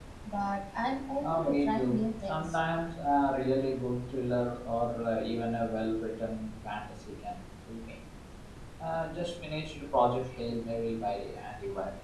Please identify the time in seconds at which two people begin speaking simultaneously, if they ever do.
1.2 s

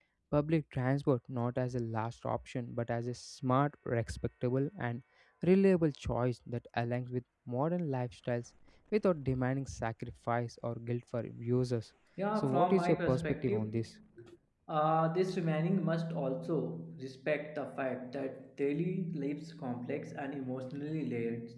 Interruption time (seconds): 12.4 s

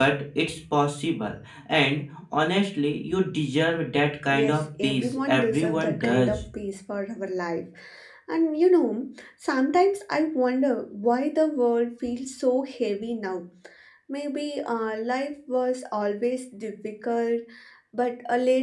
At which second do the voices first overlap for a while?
4.3 s

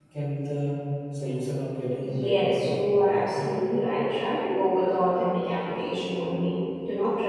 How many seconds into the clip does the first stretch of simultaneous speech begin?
2.0 s

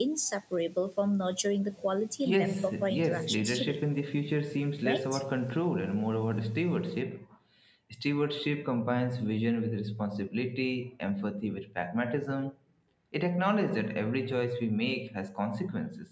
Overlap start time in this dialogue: 2.2 s

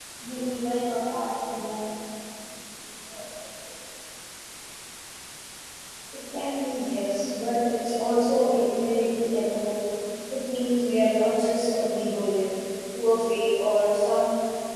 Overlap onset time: none

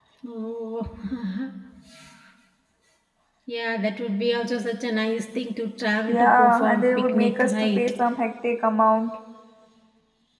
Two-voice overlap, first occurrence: 6.1 s

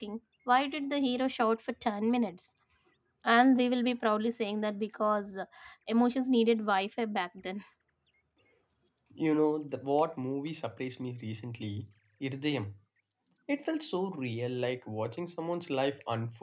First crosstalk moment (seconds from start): none

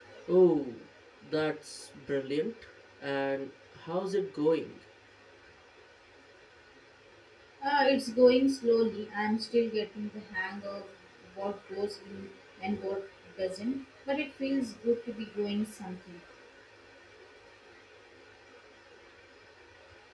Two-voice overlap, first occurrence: none

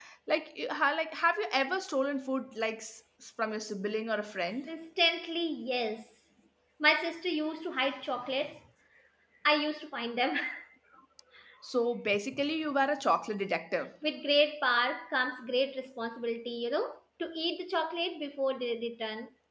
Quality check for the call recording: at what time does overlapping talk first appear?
none

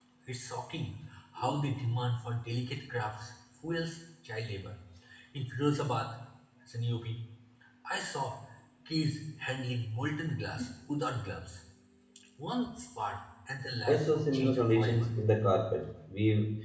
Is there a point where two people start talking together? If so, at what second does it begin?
13.9 s

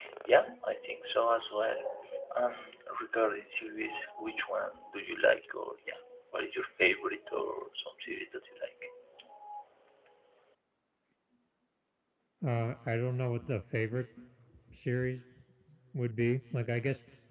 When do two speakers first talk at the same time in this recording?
none

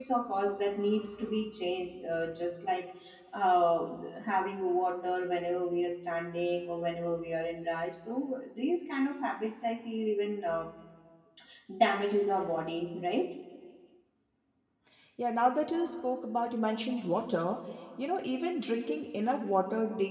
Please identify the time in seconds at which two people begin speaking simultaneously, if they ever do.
none

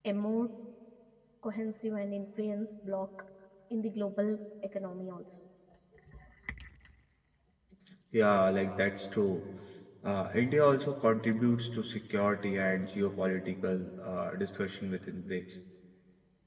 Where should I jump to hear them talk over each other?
none

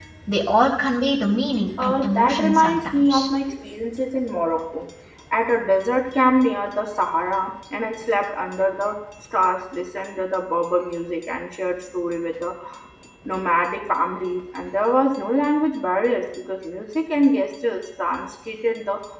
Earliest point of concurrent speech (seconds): 1.8 s

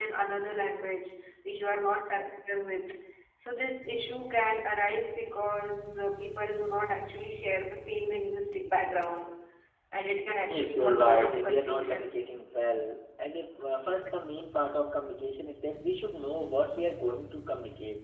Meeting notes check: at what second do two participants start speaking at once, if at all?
10.4 s

